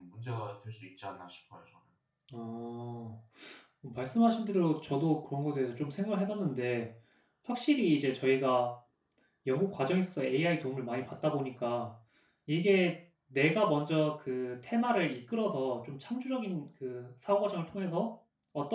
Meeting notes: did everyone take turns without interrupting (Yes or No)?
Yes